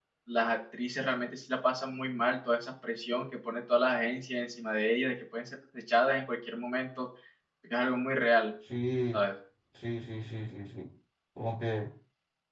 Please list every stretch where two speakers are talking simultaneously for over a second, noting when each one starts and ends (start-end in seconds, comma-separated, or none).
none